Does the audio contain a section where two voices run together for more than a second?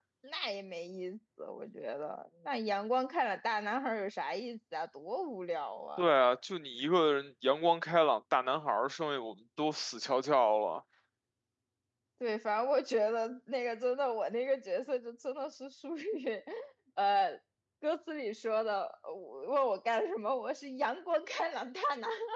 No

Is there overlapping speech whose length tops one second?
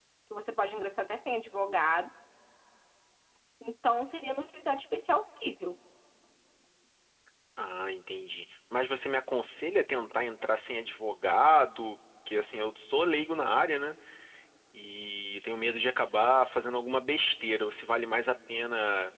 No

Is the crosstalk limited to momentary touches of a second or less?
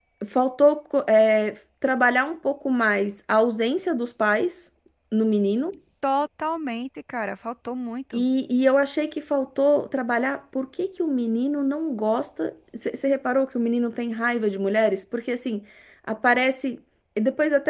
Yes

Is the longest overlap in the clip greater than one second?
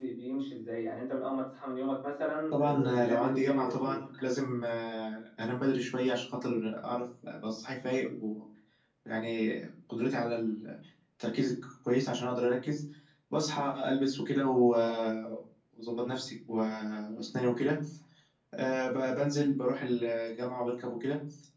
Yes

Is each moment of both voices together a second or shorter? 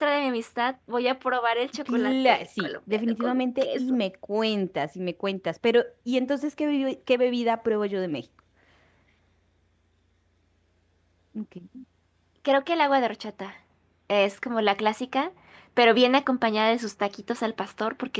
No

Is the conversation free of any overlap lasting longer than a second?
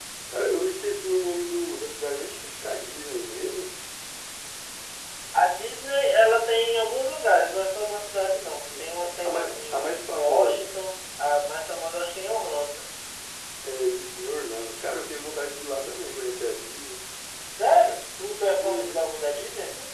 No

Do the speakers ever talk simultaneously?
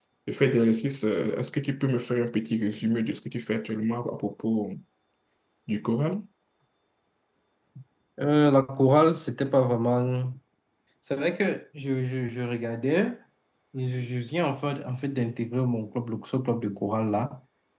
No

